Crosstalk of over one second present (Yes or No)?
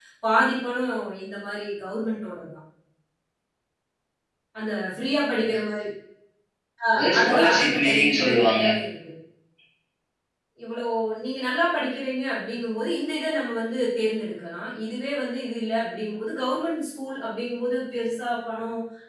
Yes